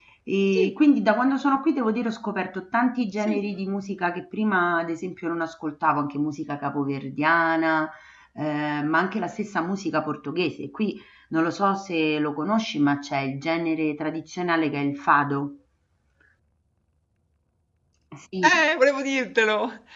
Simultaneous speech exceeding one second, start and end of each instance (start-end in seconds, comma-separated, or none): none